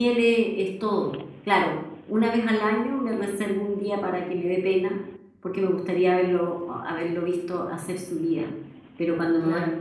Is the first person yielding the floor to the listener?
No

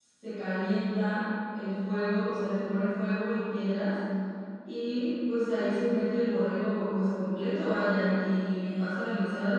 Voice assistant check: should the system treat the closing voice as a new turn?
No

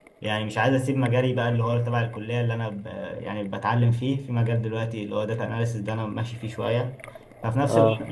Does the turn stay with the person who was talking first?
Yes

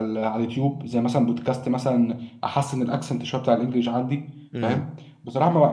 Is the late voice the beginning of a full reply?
No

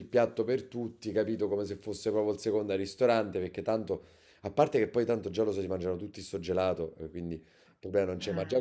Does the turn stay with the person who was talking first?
Yes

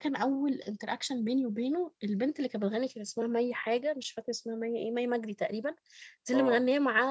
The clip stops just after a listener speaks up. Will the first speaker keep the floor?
Yes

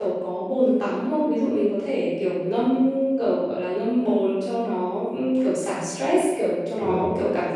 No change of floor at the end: Yes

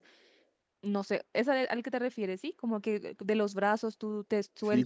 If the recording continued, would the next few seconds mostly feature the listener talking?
Yes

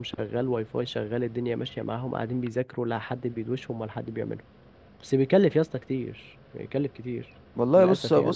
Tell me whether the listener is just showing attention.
No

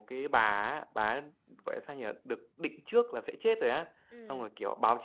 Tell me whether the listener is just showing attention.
Yes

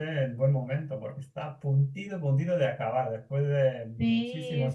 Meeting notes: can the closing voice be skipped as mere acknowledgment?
No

